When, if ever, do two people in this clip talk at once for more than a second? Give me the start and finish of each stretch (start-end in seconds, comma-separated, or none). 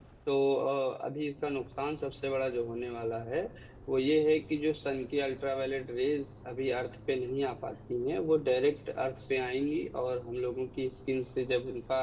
none